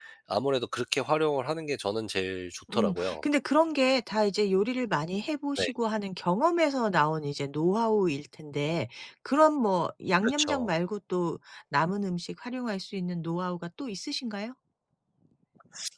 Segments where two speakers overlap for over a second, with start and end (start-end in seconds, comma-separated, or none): none